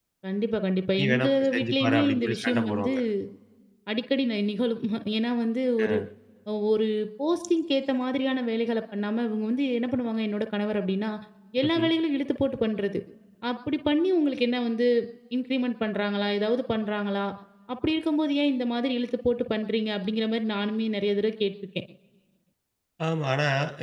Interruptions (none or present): present